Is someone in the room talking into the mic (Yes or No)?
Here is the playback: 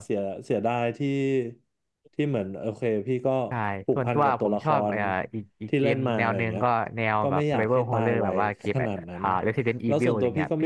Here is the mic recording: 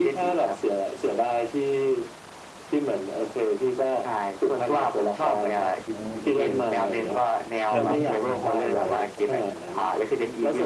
Yes